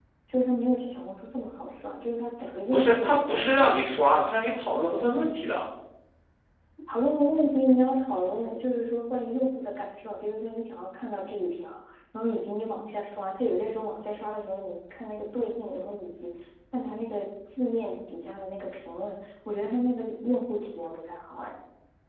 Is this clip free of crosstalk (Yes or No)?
No